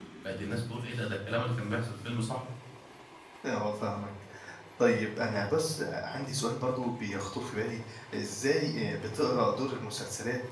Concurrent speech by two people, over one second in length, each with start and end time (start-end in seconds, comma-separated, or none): none